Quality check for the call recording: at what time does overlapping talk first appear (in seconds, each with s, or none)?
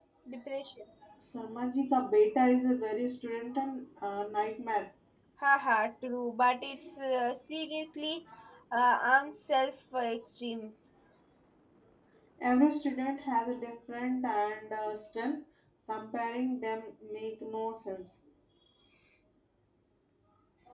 none